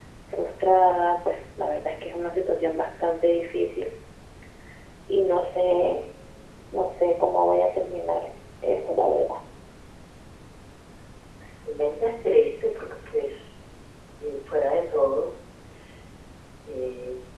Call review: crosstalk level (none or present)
none